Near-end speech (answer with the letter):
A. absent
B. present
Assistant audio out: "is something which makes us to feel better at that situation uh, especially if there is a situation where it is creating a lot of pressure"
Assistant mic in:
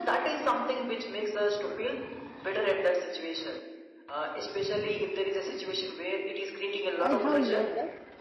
B